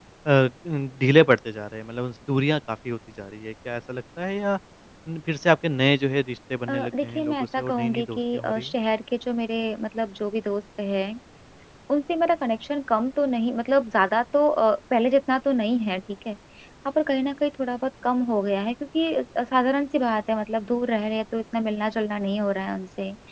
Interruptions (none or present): present